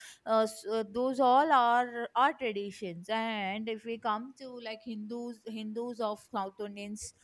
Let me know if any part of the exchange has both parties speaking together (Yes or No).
No